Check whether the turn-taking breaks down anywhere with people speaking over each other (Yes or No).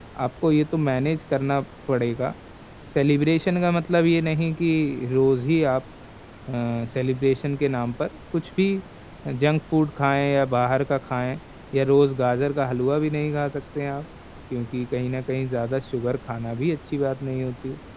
No